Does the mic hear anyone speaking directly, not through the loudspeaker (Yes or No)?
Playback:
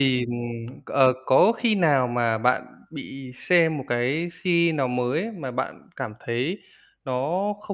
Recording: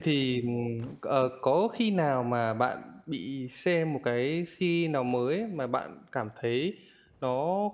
No